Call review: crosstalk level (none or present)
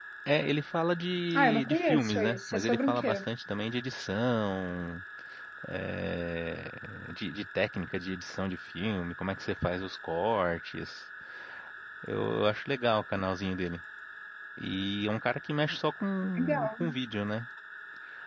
present